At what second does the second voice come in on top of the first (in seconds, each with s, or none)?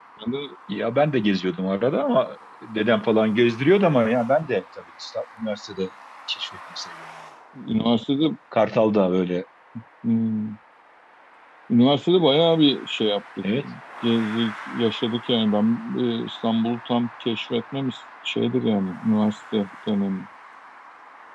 none